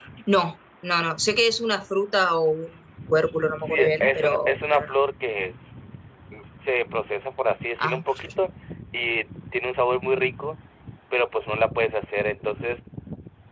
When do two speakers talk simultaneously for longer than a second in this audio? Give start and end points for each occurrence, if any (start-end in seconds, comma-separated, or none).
3.5-4.9